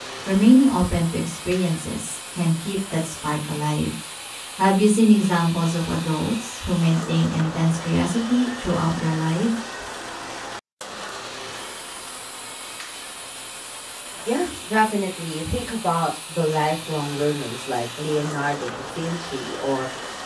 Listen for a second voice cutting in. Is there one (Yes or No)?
No